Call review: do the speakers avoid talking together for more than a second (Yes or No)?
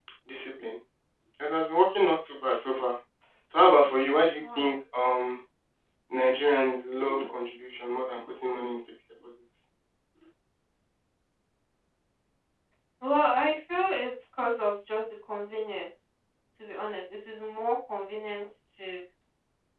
Yes